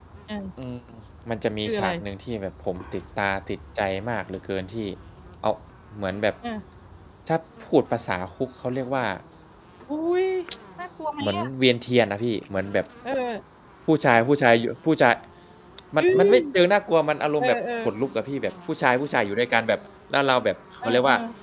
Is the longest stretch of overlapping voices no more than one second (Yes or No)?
Yes